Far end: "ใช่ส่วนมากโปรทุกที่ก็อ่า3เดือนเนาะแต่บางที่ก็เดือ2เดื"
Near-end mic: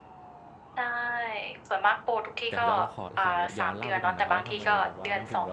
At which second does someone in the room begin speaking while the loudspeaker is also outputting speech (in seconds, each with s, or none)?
2.5 s